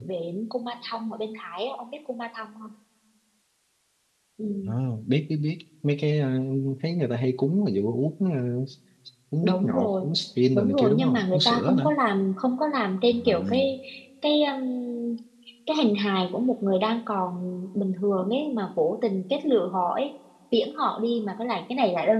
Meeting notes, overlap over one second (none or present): present